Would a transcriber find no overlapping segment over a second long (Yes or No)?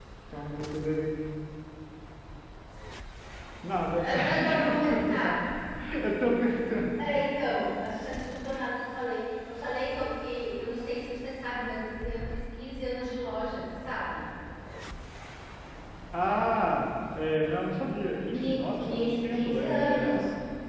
No